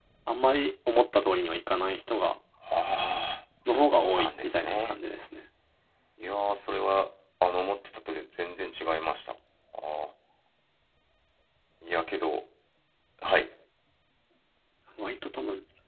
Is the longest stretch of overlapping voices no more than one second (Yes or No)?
No